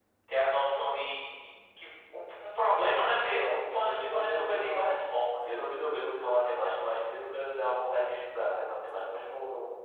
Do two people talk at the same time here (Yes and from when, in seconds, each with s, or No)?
Yes, from 3.1 s